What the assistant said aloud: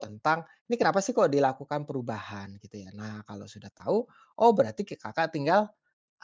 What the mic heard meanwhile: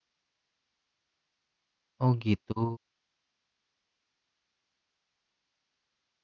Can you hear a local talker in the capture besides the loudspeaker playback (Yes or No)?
Yes